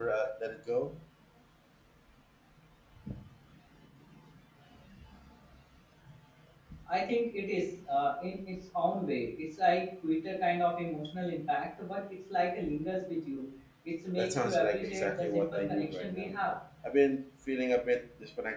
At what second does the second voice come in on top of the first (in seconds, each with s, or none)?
14.2 s